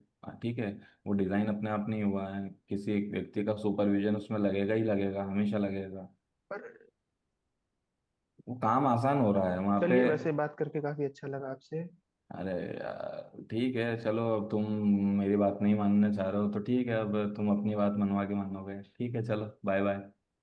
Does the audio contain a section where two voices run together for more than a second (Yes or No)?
No